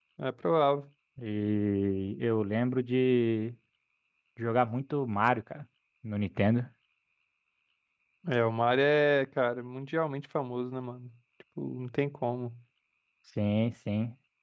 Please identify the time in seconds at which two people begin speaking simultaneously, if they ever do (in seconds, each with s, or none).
none